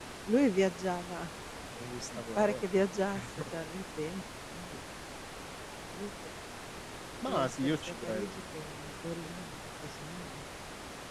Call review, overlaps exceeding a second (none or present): present